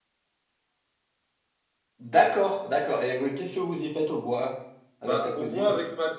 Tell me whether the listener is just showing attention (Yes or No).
No